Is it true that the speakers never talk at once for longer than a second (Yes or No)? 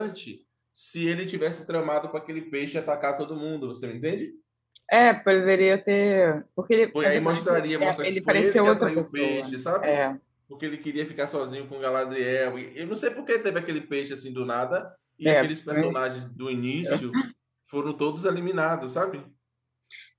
No